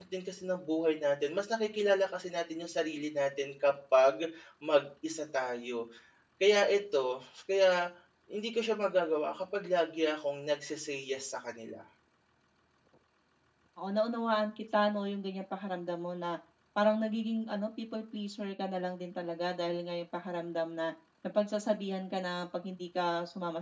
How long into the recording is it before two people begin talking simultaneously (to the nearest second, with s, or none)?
none